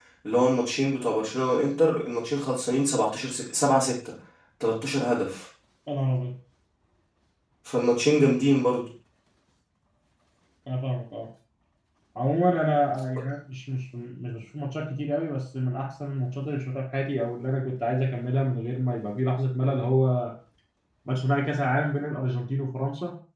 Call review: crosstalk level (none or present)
none